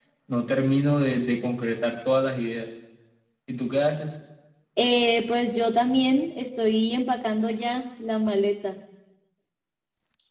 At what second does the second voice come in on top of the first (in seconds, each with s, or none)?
none